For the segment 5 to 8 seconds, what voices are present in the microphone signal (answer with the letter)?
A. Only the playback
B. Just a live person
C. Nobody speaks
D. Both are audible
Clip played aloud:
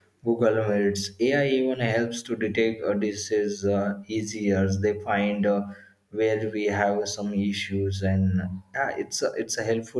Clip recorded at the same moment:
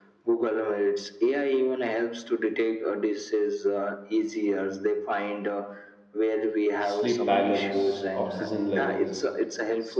D